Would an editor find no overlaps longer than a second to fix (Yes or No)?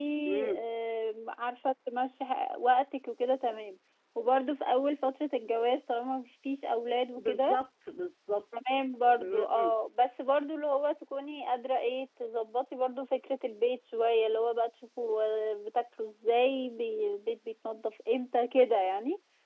Yes